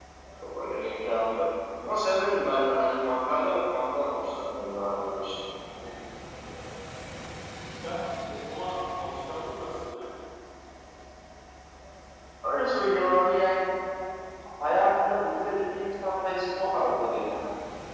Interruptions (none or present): none